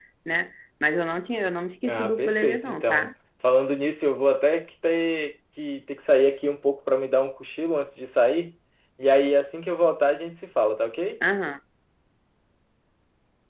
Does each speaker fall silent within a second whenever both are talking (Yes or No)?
No